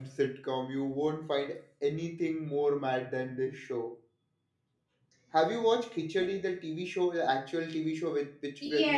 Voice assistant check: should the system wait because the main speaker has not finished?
No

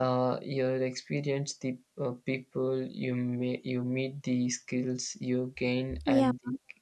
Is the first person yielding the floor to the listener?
No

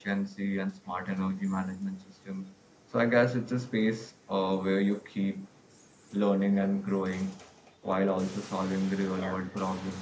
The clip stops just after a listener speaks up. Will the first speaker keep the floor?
Yes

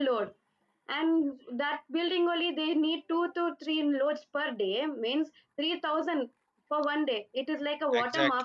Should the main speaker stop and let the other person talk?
Yes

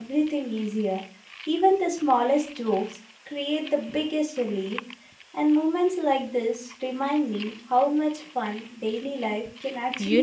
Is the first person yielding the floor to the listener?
Yes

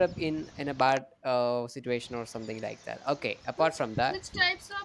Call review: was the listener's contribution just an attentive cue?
No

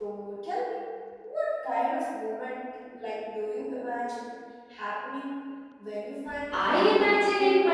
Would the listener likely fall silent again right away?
No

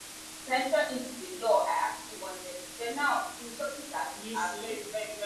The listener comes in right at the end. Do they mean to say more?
No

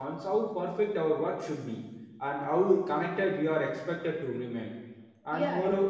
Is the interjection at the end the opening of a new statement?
Yes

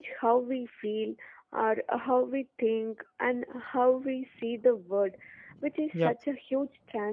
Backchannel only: Yes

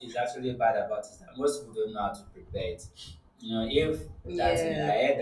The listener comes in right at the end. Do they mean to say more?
No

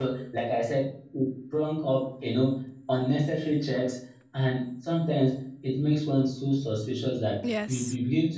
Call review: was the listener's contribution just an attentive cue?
Yes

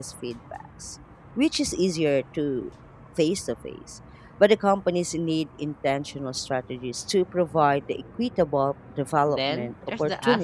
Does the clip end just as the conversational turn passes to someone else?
Yes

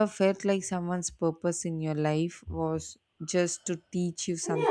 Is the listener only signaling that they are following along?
No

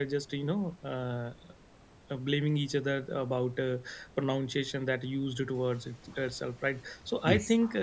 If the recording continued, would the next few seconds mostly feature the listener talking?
No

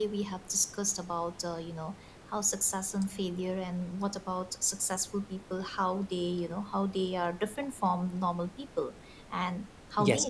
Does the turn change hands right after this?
Yes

